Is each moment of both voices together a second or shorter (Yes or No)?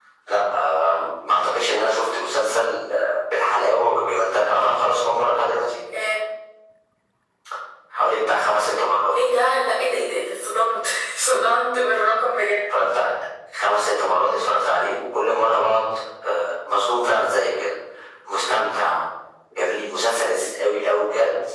Yes